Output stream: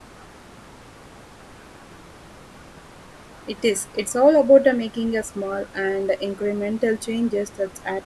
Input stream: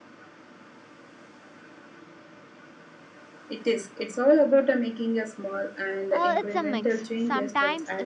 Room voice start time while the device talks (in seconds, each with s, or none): 6.1 s